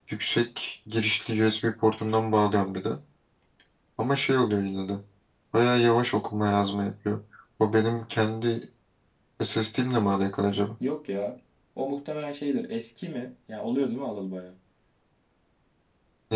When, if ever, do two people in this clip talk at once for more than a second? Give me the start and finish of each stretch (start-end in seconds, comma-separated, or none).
none